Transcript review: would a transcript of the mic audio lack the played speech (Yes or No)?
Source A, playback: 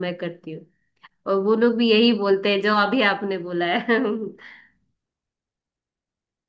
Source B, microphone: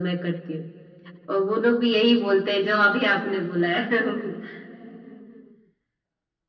No